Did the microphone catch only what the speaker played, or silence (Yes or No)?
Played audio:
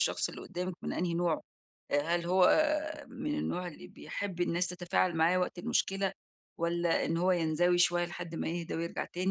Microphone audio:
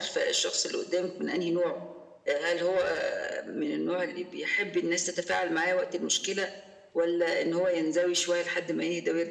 Yes